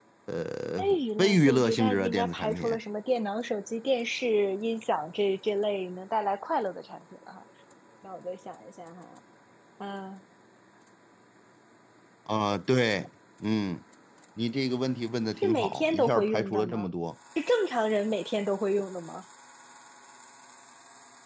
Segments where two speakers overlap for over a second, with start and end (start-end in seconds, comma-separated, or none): 0.8-2.7, 15.4-16.9